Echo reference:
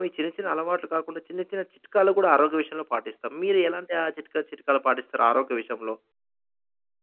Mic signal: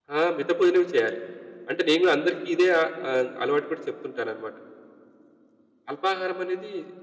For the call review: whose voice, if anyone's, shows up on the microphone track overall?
user only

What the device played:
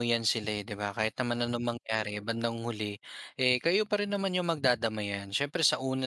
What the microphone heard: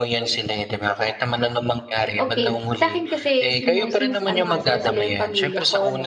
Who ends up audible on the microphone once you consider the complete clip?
both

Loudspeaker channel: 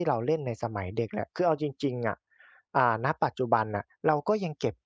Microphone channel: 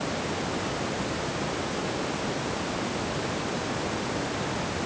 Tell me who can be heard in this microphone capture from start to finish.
neither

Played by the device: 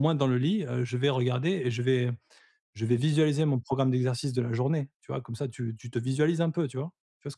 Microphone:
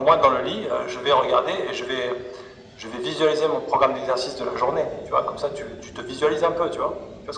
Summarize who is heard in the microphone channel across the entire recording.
echo only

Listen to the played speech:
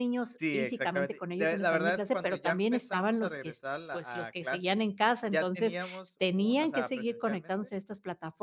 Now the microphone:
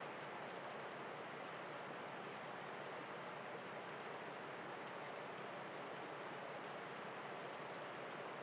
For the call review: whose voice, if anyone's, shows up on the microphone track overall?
neither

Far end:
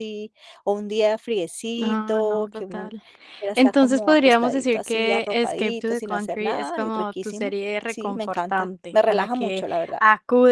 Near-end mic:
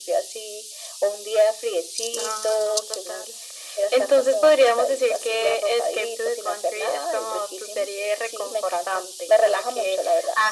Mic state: echo only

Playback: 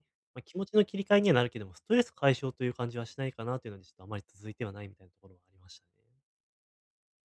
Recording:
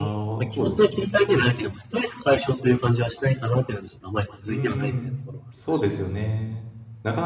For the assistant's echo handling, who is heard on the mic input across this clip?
both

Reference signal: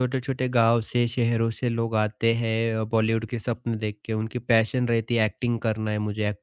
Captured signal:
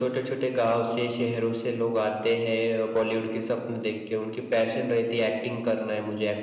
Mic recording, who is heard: echo only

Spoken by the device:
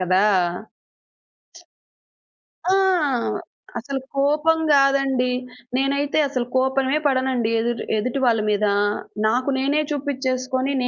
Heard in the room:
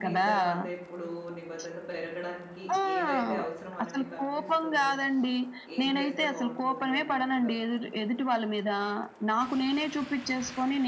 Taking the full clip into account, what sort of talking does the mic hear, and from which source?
both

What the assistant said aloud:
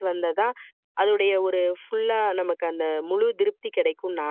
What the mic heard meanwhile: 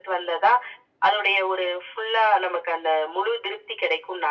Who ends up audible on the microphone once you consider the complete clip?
echo only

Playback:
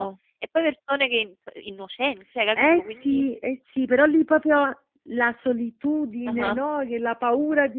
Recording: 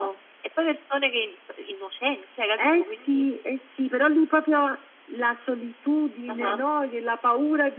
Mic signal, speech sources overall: echo only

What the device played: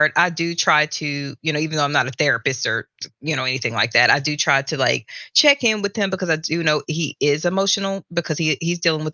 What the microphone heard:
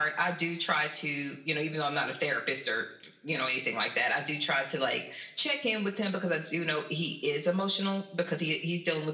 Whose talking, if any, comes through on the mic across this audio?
echo only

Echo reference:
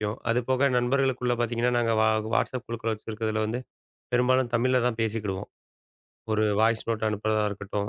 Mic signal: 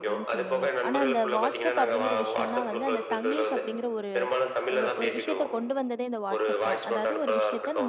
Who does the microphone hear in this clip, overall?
both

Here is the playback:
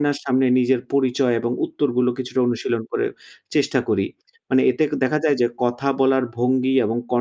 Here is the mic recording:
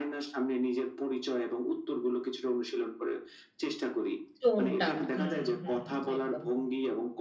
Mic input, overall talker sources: both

